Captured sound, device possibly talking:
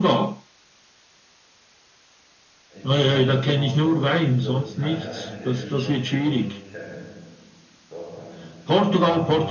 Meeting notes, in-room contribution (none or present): present